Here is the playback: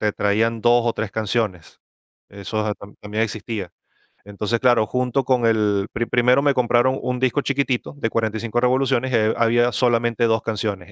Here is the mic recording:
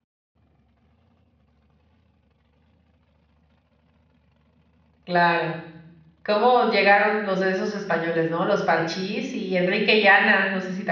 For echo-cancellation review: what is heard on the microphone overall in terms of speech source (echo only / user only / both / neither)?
user only